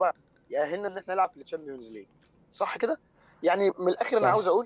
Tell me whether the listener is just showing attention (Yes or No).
Yes